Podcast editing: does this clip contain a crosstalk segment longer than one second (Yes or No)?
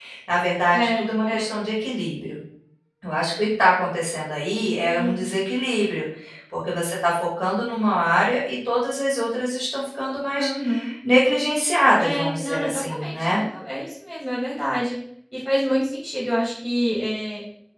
Yes